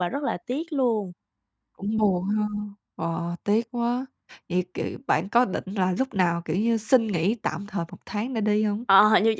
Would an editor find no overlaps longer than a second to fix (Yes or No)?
Yes